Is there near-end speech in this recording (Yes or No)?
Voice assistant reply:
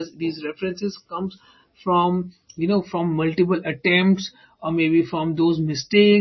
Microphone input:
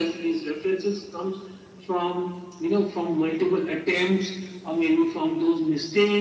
No